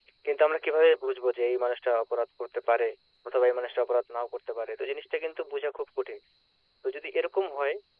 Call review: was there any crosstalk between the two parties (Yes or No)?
No